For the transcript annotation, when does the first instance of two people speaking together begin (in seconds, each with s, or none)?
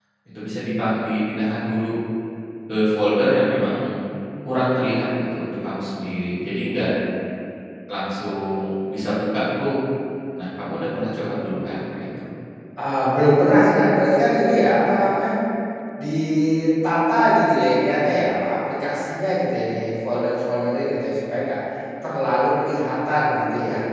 none